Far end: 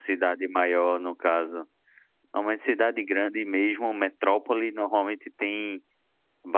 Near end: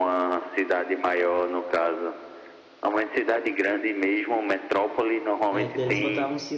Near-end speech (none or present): present